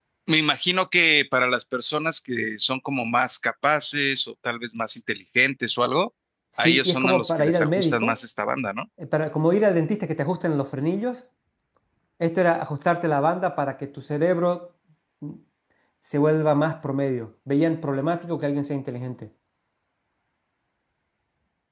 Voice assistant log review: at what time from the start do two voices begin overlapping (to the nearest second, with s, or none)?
7 s